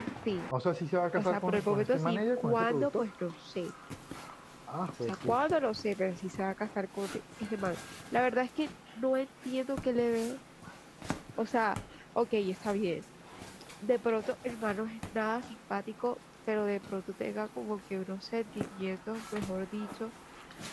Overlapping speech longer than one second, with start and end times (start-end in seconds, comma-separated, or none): 1.2-3.1